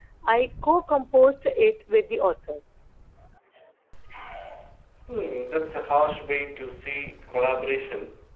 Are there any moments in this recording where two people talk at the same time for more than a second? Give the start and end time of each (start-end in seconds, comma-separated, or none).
none